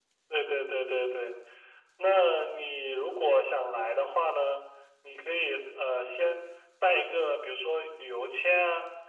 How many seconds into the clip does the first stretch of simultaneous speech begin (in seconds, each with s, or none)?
none